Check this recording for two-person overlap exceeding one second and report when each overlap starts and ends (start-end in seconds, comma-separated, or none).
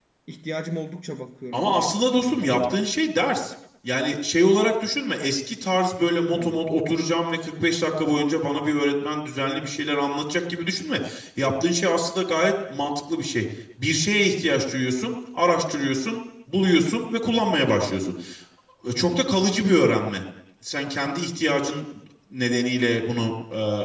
1.5-2.9